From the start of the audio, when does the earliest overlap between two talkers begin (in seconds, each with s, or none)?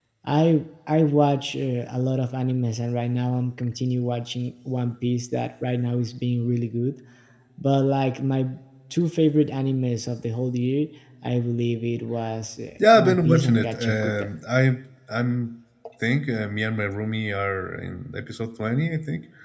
12.8 s